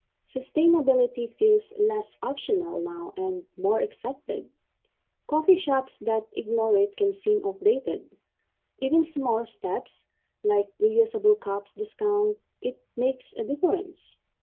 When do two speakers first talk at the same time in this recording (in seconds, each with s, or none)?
none